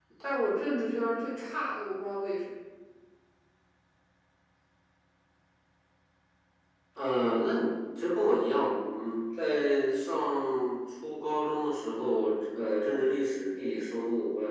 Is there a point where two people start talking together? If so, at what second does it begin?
none

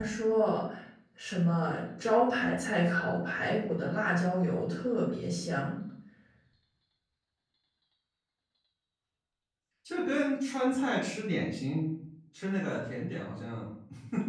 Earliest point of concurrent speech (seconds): none

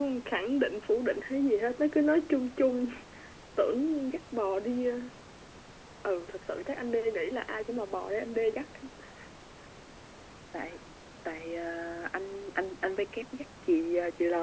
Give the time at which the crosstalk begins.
none

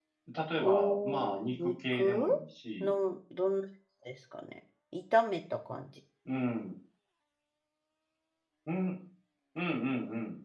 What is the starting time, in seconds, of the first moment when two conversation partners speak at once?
1 s

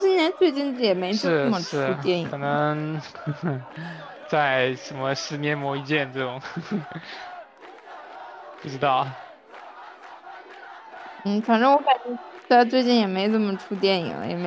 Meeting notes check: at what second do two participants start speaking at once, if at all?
1 s

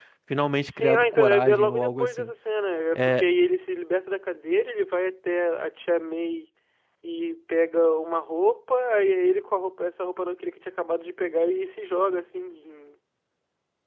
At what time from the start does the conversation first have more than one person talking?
1 s

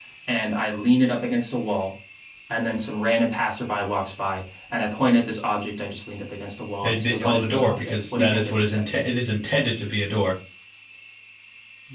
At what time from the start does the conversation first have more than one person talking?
7 s

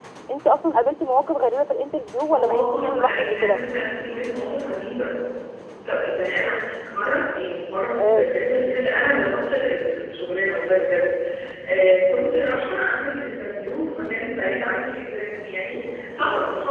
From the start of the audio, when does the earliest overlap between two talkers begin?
2 s

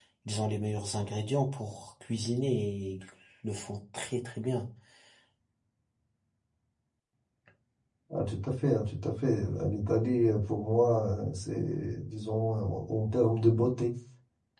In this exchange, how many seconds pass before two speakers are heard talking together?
none

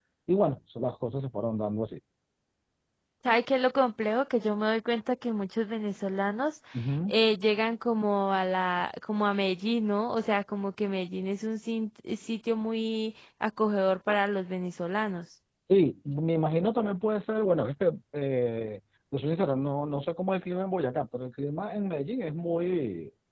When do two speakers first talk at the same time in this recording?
none

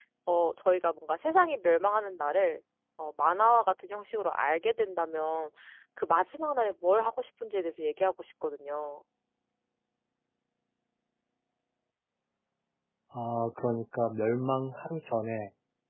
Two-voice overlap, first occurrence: none

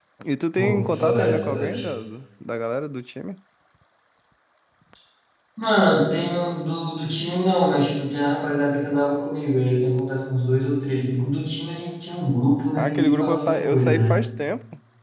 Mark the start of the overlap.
1 s

